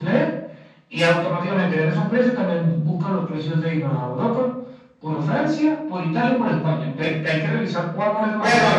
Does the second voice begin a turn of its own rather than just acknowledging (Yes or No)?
Yes